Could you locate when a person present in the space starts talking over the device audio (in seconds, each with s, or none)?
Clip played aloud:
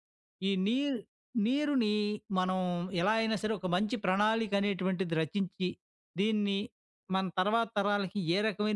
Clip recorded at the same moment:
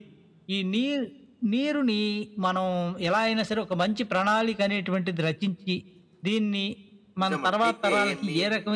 7.2 s